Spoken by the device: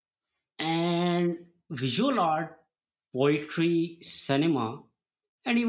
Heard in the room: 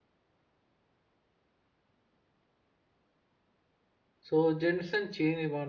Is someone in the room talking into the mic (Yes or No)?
Yes